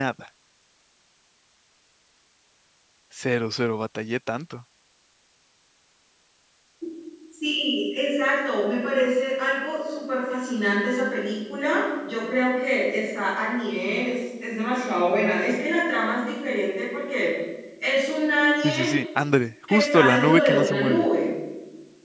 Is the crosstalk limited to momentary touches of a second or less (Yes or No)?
No